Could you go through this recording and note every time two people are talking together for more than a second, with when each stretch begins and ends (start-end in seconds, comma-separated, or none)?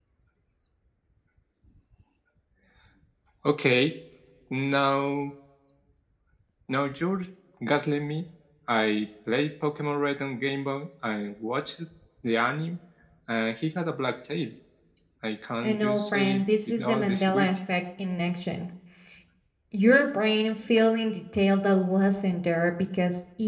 15.6-17.5